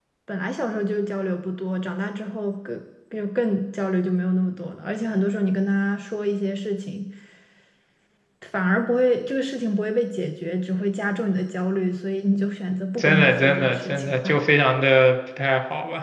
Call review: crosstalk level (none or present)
present